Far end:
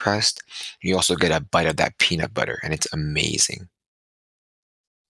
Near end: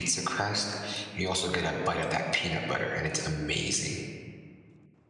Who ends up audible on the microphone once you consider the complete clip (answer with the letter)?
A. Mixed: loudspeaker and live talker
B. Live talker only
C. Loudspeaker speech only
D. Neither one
C